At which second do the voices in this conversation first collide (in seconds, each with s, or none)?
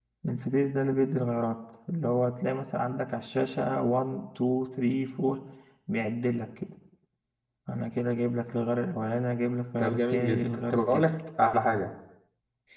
9.8 s